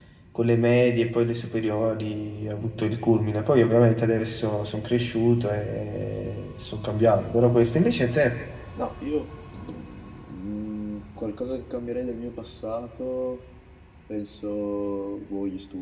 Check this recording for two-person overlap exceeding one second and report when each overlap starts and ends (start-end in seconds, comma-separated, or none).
none